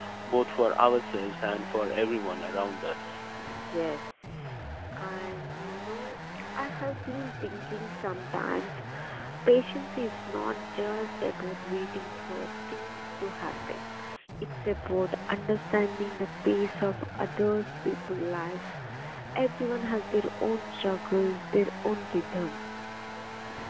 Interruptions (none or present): none